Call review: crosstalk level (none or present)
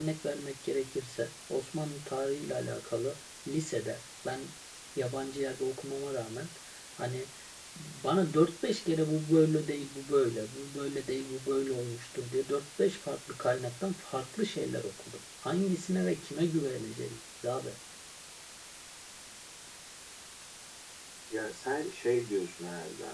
none